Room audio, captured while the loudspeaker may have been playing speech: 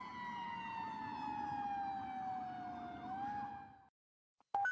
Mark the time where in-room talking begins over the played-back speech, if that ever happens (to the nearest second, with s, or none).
none